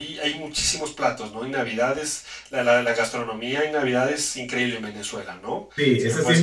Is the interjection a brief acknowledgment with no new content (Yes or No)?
No